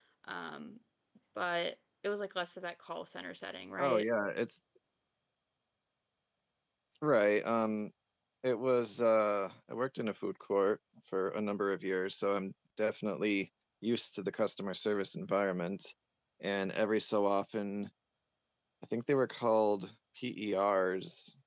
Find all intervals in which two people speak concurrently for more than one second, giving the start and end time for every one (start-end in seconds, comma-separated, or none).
none